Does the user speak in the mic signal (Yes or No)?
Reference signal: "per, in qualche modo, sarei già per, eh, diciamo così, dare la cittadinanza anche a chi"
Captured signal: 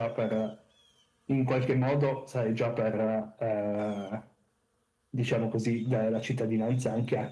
No